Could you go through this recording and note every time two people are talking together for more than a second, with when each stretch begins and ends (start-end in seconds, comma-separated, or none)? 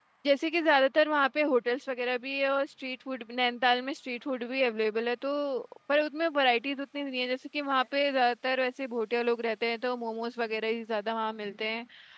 none